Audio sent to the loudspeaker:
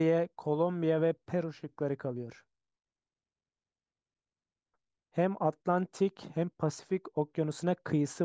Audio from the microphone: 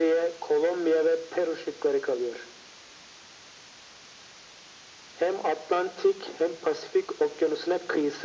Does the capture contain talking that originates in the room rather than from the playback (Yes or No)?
No